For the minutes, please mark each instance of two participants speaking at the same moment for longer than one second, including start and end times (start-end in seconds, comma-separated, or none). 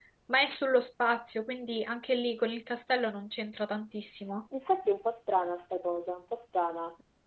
none